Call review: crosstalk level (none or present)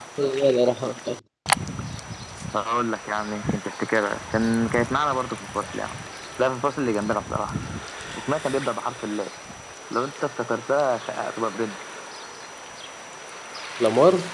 none